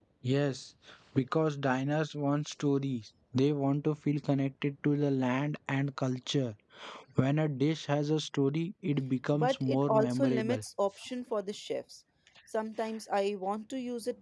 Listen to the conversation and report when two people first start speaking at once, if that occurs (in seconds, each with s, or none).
9.3 s